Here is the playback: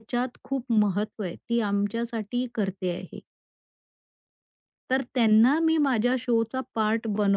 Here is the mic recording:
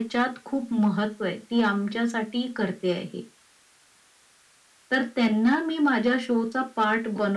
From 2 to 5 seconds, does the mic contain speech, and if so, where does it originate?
echo only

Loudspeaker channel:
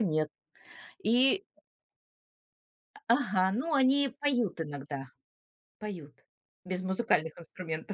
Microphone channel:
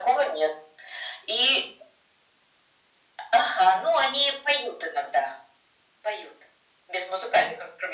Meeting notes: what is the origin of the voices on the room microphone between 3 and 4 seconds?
echo only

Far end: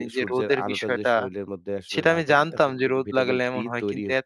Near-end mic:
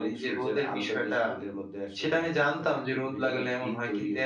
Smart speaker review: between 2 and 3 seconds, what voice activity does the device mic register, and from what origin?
echo only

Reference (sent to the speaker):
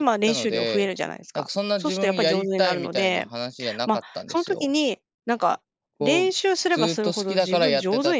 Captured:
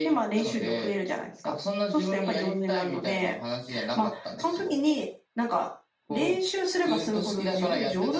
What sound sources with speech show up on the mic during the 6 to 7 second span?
echo only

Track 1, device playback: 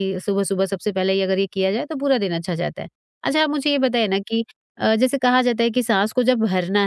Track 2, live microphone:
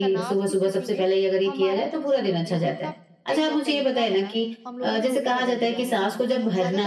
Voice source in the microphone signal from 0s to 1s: both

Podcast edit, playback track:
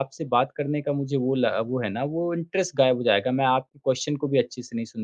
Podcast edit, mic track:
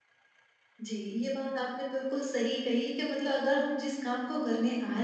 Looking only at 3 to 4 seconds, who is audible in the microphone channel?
user only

